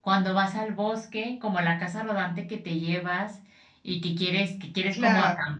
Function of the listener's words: listening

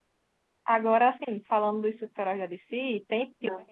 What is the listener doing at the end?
listening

